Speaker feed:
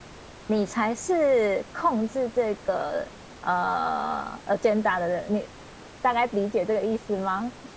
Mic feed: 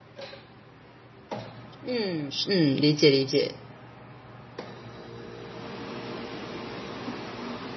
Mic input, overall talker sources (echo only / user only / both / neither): user only